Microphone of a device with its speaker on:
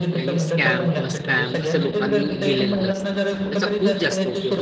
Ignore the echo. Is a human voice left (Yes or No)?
Yes